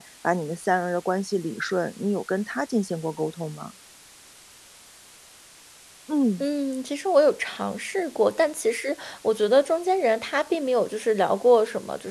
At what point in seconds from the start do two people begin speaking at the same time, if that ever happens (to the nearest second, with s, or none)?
none